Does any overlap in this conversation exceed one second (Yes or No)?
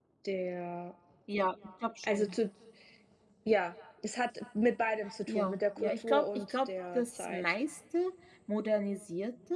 Yes